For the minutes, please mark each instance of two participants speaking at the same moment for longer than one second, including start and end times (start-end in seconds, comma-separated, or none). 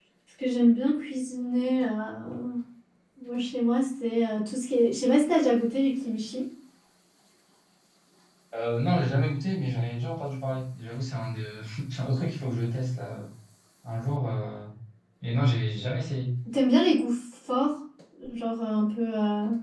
none